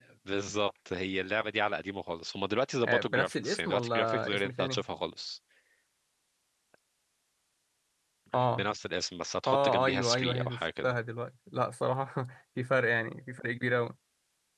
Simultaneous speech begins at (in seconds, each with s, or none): 2.8 s